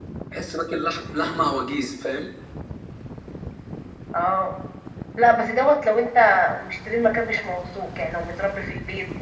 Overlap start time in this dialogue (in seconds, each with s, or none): none